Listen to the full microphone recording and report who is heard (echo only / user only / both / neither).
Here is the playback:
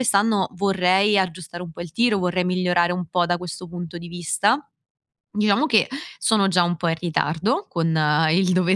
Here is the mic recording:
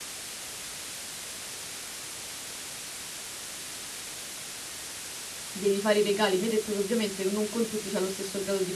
user only